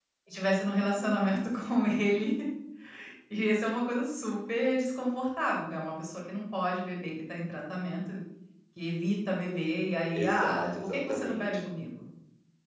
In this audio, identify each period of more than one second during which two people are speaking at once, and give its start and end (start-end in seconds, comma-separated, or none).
10.2-11.7